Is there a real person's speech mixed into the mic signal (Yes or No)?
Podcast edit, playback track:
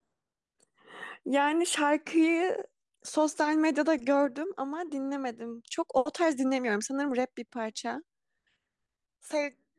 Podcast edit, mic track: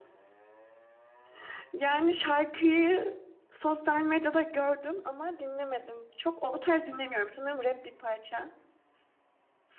No